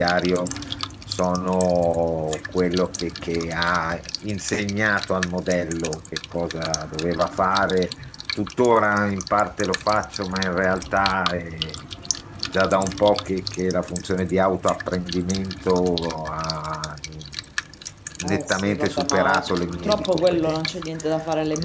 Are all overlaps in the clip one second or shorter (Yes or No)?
No